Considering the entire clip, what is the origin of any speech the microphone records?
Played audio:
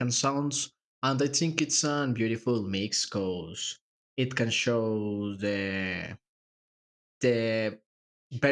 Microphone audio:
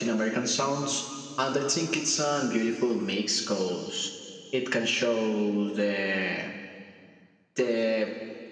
echo only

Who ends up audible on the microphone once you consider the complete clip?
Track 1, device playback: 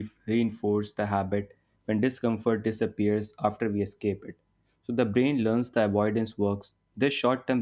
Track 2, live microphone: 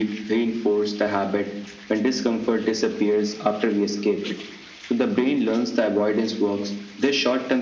echo only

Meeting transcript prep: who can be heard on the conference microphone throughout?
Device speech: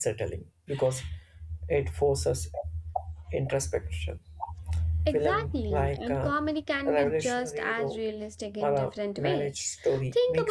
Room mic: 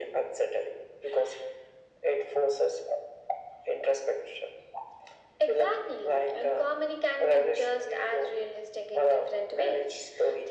echo only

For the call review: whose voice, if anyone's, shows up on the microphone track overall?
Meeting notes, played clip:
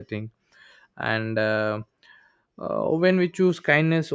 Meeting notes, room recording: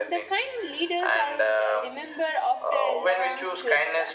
both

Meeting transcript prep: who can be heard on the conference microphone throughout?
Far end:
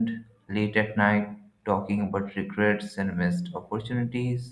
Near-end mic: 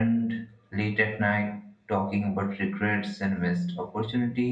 echo only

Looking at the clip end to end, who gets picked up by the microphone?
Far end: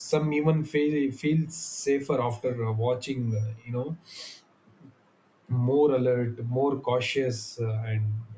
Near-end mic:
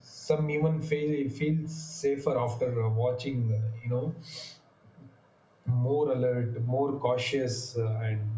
echo only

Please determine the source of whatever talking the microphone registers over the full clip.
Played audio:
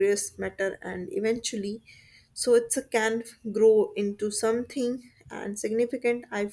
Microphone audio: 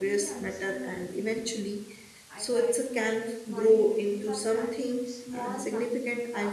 both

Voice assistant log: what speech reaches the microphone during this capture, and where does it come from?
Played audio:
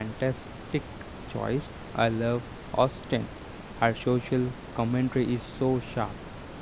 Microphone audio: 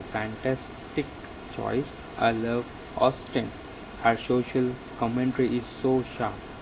echo only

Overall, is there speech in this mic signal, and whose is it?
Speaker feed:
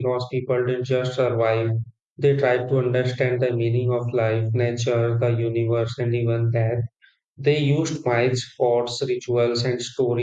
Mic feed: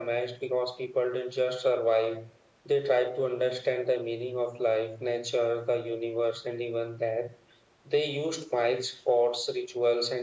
echo only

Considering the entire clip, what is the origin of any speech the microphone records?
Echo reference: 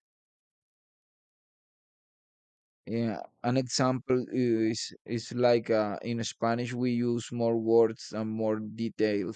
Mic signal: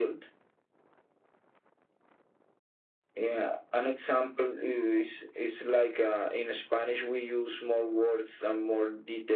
echo only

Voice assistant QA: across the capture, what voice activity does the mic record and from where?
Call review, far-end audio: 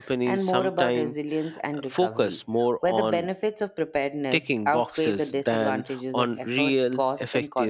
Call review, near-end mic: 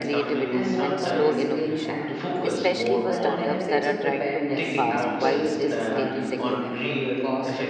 both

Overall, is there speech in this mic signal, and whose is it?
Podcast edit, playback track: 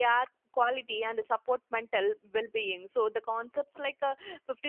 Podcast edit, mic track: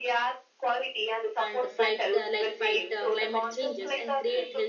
both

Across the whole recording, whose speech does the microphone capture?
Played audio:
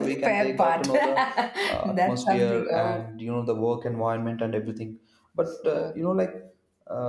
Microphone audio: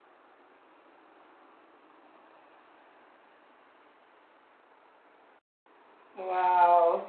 user only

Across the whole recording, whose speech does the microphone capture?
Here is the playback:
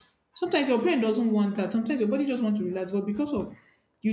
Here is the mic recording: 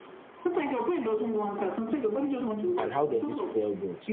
both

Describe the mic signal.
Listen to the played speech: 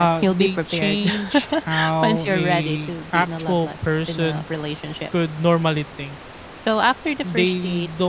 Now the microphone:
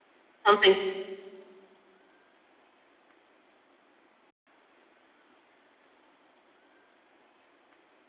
user only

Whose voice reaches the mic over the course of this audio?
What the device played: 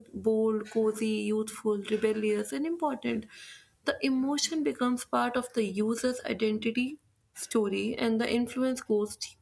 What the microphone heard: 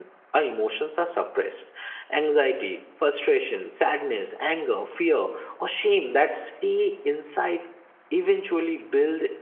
user only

